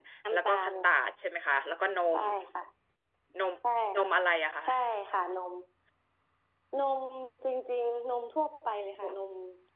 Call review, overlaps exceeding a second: none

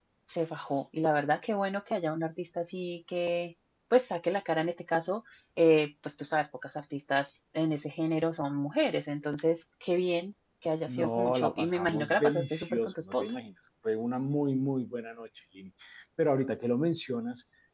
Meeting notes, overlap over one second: present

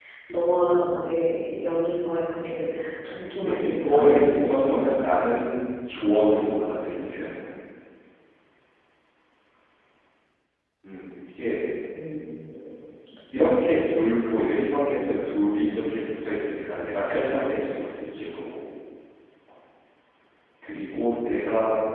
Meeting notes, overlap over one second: present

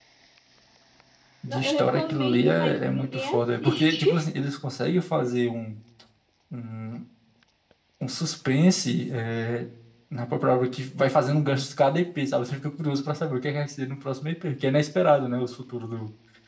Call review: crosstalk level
present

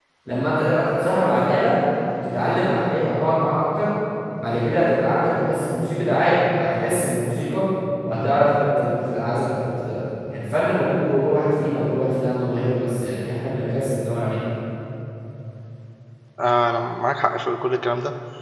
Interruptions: none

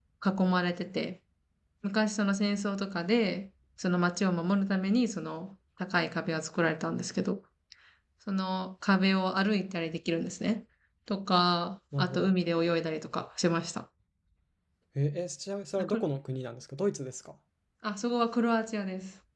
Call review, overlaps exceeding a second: none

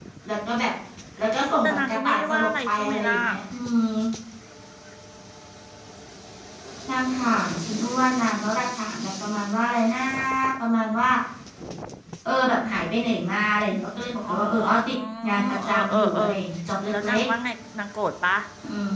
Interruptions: present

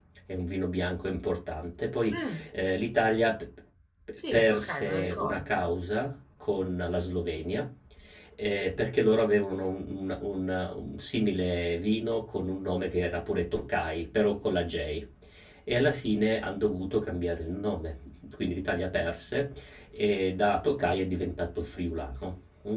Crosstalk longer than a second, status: present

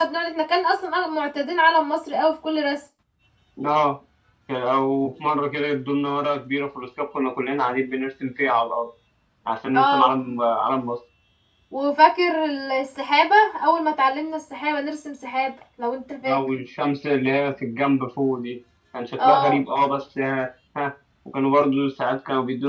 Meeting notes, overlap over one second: none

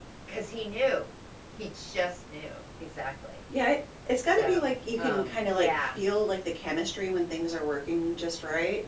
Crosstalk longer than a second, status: present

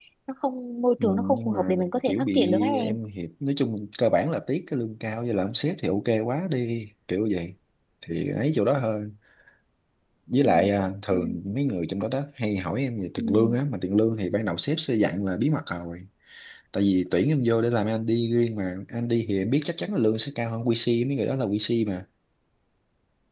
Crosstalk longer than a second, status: present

